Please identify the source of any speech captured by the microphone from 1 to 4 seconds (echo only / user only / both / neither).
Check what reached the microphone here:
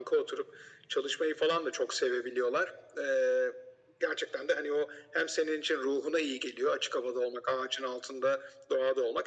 echo only